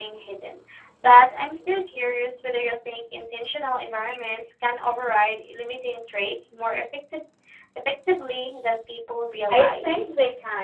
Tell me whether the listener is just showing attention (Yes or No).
No